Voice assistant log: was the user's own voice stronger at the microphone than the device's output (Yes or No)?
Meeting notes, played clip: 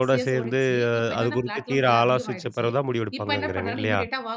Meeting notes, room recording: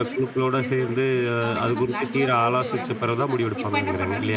No